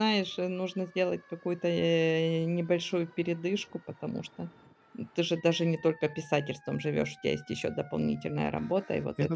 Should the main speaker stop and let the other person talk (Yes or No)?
No